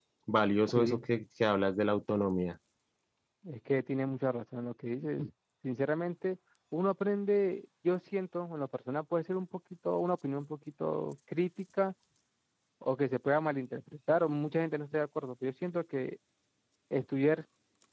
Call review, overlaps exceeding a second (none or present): none